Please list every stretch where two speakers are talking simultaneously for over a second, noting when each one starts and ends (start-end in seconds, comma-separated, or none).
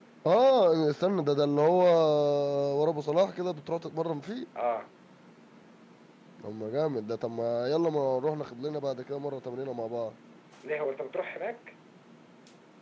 none